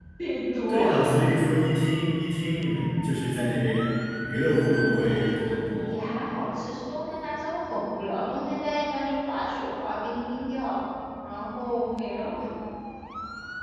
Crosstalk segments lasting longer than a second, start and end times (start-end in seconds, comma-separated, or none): none